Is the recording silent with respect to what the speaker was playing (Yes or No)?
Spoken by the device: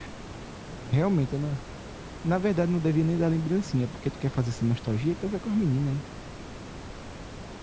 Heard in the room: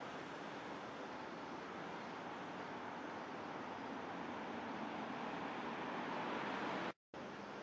Yes